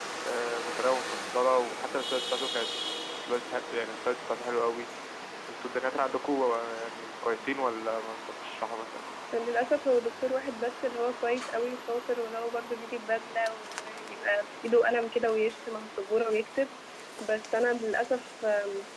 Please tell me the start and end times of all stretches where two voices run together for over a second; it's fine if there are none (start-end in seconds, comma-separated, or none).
none